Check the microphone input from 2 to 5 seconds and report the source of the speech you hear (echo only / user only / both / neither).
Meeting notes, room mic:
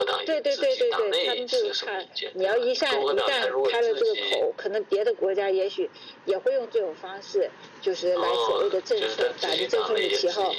echo only